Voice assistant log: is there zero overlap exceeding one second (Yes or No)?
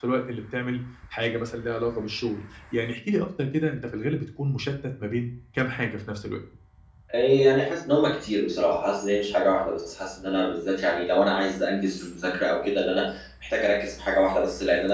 Yes